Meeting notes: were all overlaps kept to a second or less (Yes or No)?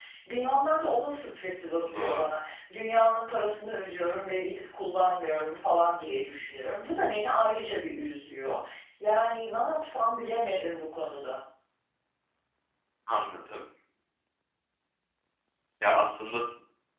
Yes